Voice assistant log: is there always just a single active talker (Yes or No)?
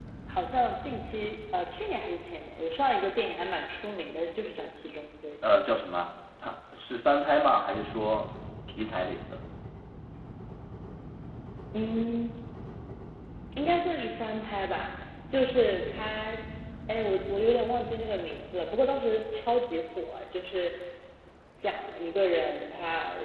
Yes